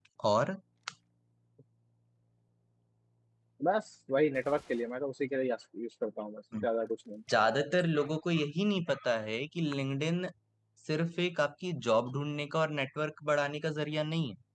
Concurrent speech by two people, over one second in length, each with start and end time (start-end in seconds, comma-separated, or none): none